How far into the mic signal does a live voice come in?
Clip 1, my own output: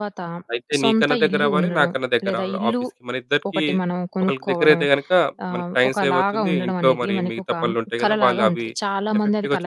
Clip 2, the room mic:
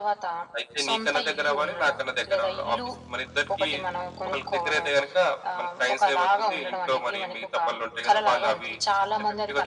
none

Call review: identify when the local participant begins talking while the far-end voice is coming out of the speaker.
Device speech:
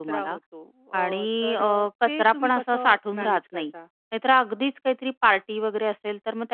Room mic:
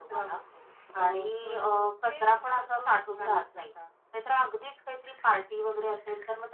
none

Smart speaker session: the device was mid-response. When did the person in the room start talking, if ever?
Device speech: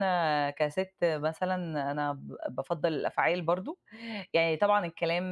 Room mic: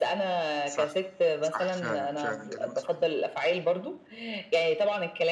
1 s

